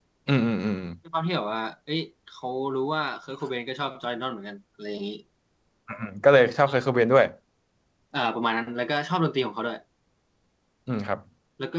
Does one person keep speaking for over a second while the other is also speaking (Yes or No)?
No